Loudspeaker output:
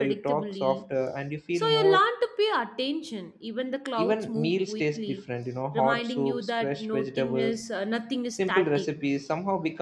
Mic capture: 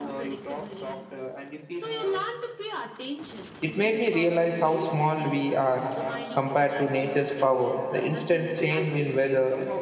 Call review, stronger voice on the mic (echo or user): user